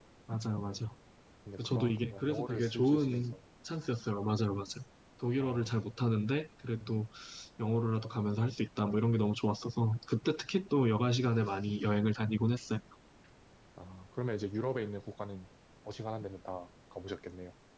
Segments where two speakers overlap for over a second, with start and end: 1.6-3.2

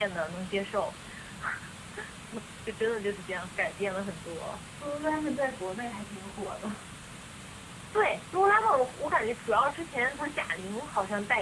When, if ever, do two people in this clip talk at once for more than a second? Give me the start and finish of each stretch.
none

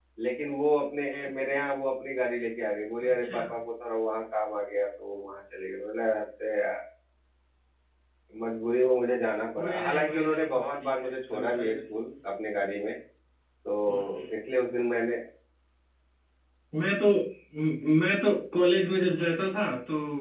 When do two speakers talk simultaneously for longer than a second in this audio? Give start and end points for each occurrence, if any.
9.6-11.8

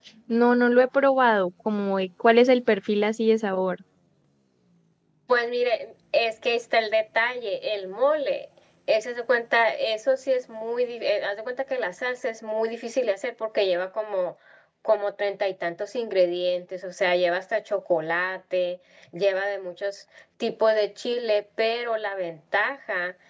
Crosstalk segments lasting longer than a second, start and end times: none

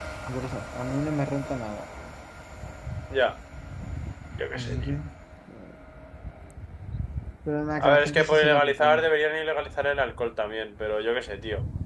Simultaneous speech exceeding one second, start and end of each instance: 7.8-9.1

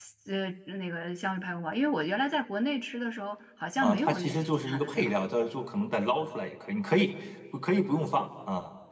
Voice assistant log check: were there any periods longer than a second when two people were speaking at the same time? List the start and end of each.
3.8-5.2

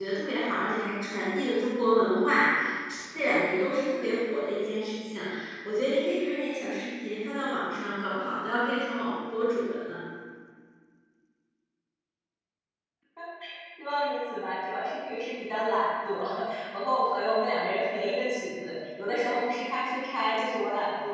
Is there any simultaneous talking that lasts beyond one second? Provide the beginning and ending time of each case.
none

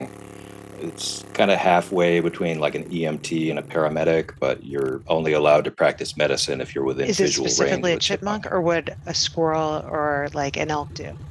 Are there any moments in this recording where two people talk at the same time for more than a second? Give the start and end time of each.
7.0-8.5

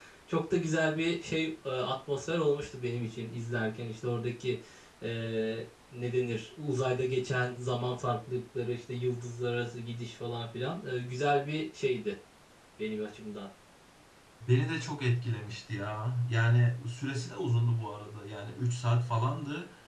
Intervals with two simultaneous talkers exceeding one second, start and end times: none

